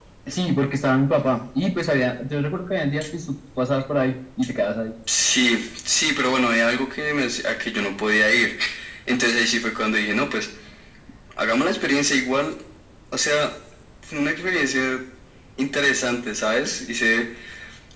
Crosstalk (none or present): none